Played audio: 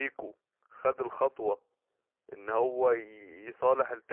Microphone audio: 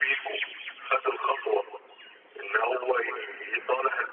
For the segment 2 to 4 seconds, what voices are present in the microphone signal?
echo only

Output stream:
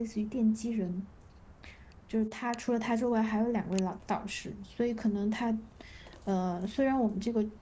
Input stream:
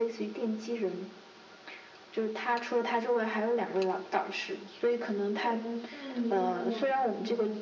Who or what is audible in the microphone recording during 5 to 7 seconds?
both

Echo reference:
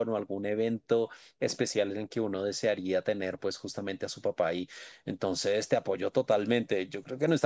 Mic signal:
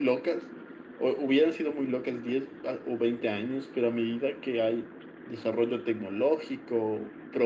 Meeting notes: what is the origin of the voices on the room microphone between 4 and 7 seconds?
user only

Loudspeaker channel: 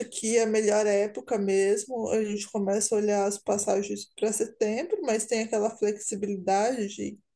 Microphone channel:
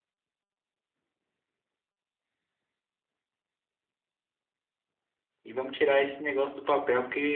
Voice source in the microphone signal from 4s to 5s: neither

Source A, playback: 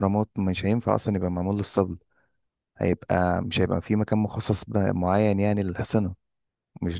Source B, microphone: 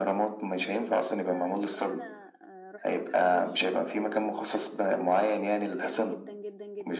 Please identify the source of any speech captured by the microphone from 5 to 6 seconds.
both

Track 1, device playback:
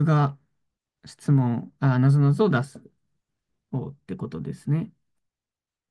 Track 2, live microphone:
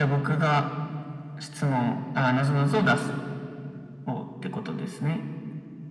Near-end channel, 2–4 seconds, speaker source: echo only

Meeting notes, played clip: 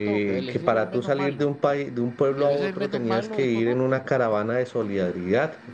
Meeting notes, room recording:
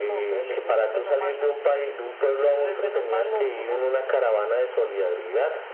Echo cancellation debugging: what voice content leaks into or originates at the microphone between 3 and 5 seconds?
echo only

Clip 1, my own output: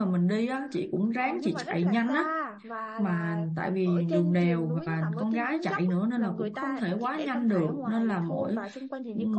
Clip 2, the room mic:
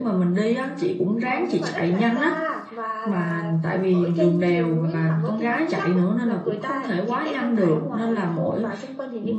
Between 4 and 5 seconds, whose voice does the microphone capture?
echo only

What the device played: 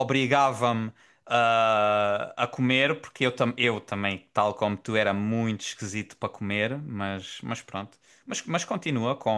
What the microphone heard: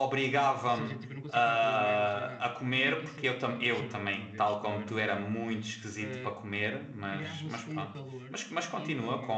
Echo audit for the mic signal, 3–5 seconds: both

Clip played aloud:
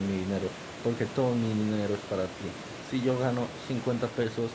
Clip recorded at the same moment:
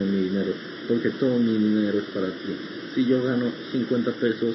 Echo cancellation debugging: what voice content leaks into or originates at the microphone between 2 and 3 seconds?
echo only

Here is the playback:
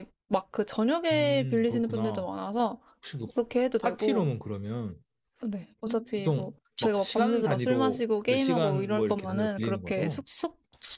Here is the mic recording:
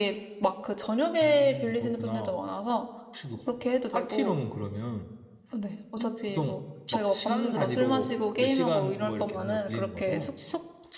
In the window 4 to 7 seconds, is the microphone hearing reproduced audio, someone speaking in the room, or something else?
echo only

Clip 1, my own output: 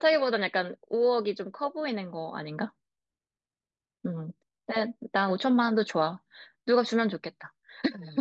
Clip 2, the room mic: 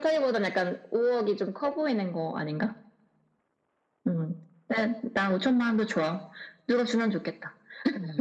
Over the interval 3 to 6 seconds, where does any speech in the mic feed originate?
echo only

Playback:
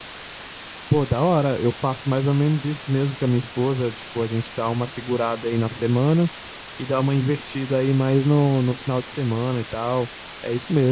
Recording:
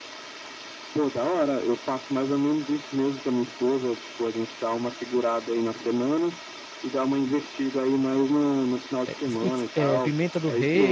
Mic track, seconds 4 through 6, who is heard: echo only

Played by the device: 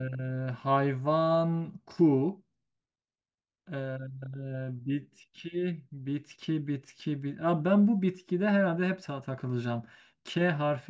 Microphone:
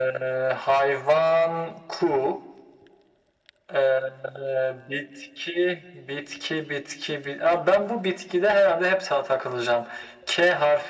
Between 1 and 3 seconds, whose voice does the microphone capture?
echo only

